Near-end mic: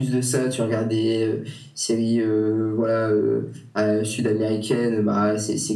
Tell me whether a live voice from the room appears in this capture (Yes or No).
No